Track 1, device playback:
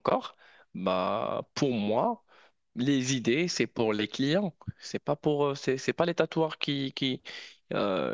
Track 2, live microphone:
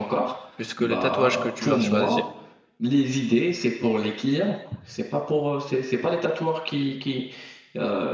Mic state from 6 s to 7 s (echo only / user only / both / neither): echo only